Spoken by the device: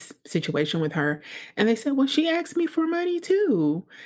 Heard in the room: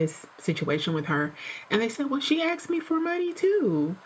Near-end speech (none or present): none